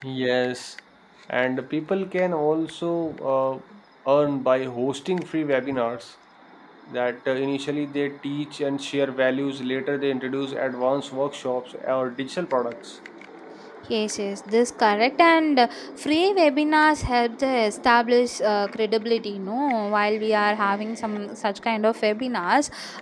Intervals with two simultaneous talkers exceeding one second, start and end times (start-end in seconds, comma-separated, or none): none